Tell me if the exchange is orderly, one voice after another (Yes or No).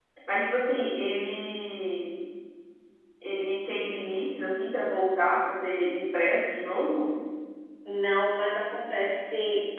Yes